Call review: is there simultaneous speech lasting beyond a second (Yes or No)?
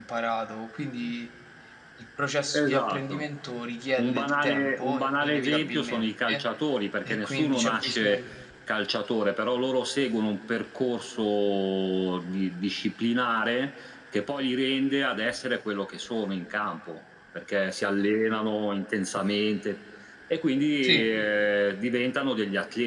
Yes